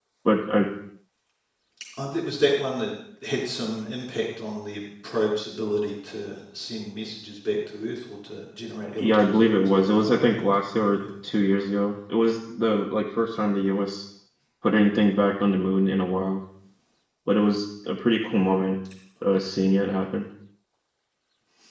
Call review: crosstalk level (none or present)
present